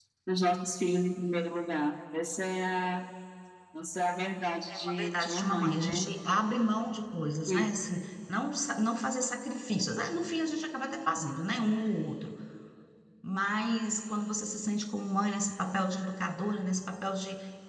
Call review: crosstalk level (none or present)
present